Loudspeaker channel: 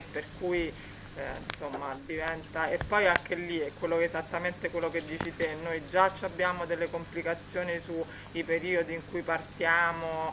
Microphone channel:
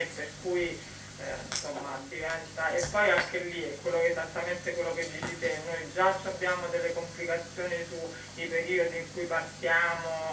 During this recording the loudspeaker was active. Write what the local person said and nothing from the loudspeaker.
none

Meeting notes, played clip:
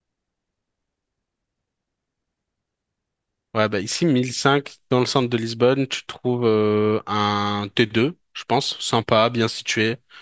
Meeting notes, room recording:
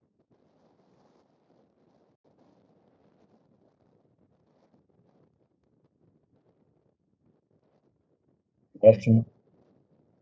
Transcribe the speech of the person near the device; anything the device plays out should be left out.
là, tu...

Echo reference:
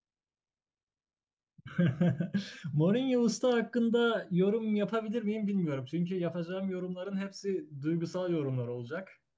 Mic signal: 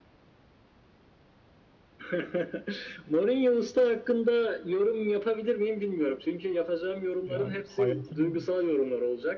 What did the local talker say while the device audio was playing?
Yani hayatının

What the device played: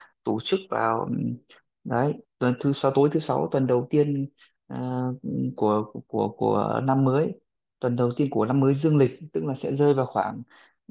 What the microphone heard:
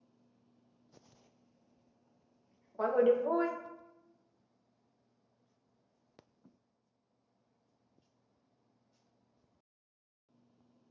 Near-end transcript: mọi người đều vui

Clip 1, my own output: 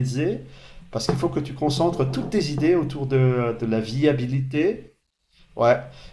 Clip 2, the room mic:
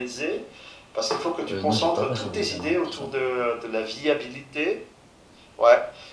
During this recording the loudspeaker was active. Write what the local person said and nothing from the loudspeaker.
Euh, non, j'ai pas passé d'examen pour ça.

